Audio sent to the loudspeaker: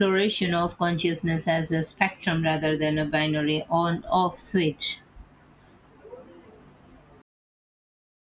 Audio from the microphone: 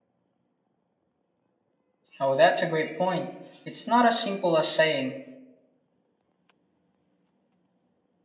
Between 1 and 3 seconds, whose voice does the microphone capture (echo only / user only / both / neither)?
user only